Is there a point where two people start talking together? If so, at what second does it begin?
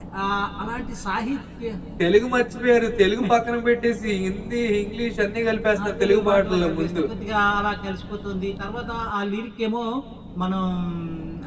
6 s

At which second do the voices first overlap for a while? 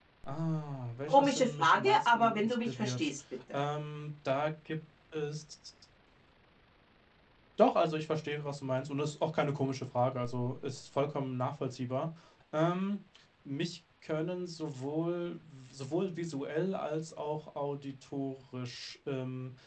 1 s

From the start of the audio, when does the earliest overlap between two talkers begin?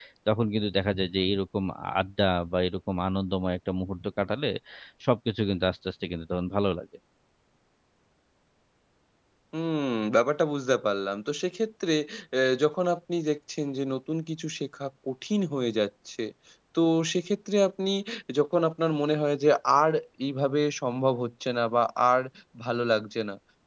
none

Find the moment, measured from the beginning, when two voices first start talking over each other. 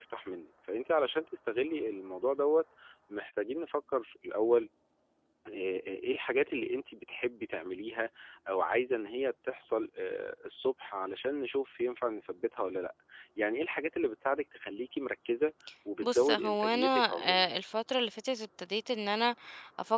16 s

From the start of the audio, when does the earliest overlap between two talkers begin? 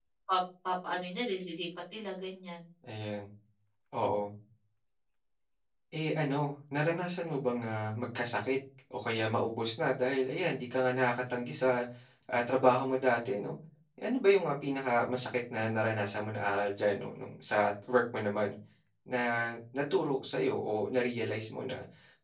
none

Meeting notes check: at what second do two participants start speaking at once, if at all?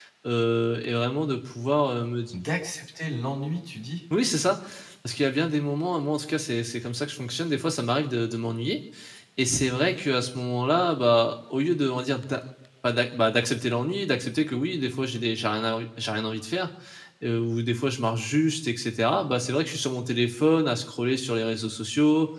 none

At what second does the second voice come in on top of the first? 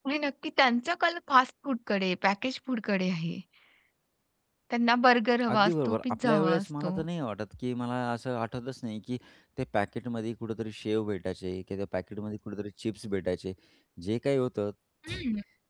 6 s

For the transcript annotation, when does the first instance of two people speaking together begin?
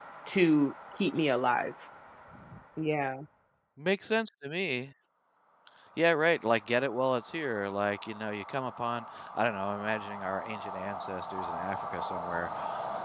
none

